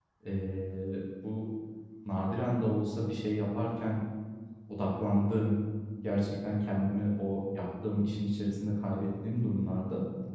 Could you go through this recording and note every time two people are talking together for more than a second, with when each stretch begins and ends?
none

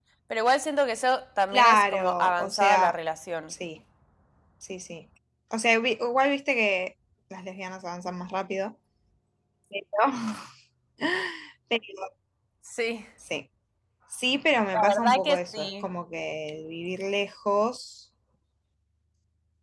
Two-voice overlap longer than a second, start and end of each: 1.5-3.0, 14.7-15.9

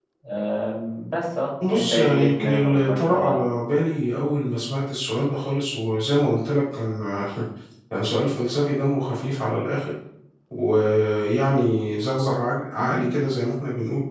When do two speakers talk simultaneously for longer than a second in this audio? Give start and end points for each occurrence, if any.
1.7-3.4

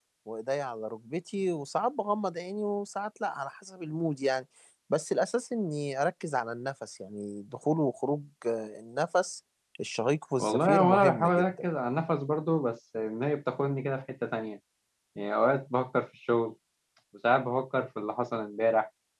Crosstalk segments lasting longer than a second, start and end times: 10.4-11.7

